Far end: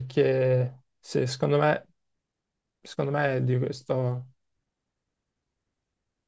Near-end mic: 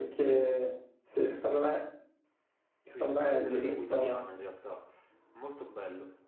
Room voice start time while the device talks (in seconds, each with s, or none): 2.8 s